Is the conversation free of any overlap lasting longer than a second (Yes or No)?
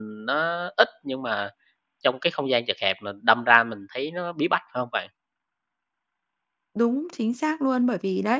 Yes